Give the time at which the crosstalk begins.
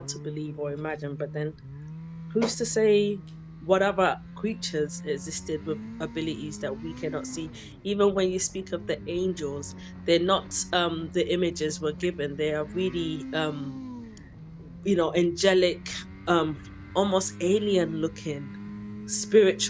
none

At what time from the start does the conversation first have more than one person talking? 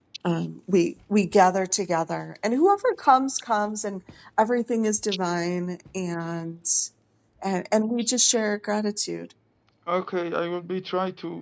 none

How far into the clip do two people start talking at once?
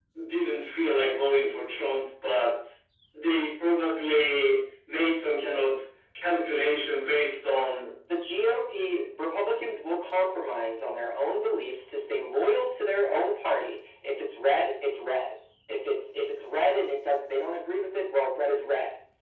none

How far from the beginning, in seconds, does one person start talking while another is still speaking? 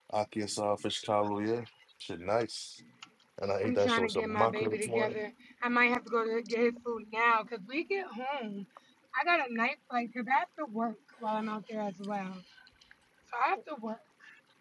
3.6 s

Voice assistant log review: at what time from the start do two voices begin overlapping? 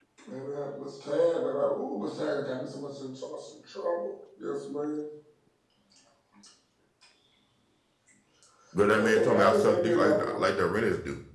9.0 s

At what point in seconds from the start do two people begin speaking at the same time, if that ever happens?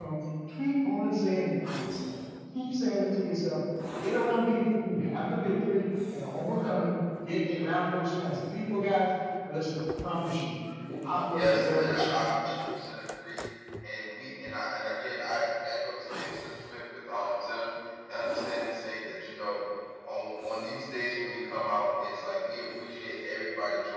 11.3 s

